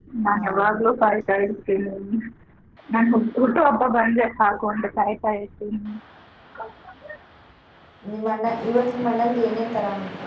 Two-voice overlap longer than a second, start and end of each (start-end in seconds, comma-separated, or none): none